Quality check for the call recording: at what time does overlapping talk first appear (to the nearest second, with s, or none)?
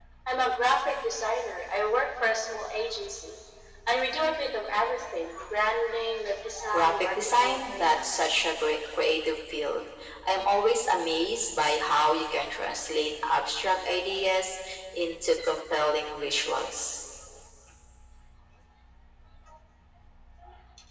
7 s